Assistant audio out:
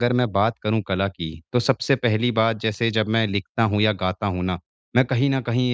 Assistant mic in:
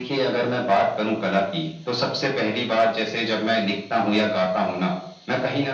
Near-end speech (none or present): none